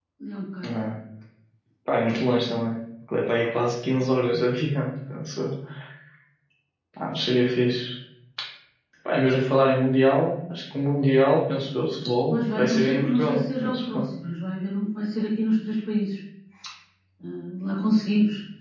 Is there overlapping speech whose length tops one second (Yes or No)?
Yes